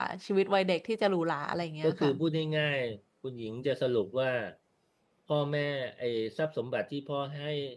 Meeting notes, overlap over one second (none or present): none